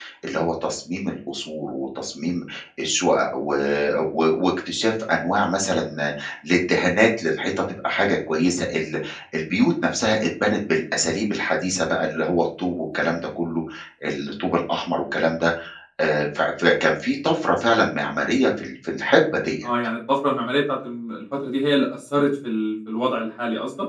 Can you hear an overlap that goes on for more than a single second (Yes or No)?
No